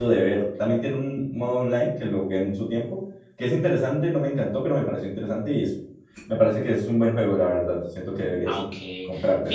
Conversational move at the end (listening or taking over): taking over